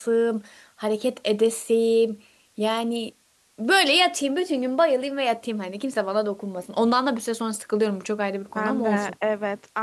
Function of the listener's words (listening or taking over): taking over